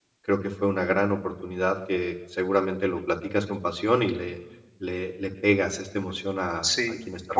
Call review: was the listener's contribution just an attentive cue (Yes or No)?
No